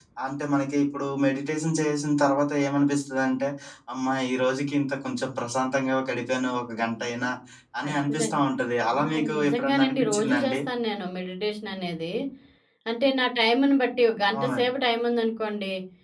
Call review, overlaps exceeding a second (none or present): present